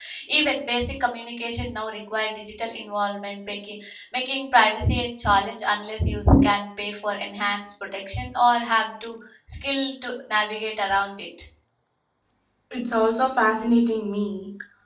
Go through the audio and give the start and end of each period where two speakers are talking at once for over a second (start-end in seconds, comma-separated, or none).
none